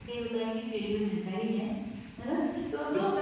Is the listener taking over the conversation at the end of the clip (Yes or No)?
No